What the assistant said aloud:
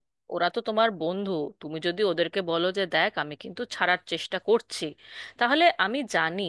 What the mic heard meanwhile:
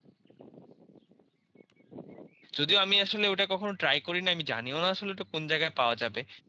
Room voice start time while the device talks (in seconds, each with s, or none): 2.6 s